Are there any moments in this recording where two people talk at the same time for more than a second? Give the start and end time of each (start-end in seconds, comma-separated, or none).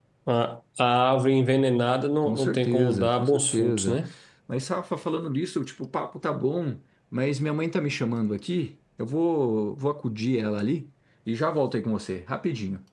2.2-4.0